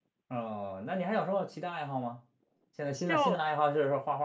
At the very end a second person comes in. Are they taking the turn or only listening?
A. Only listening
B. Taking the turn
A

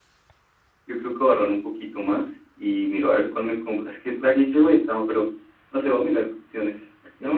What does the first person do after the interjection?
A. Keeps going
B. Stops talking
B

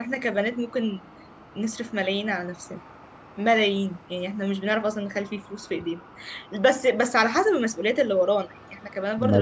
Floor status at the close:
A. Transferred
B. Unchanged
B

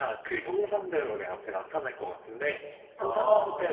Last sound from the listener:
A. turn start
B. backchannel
B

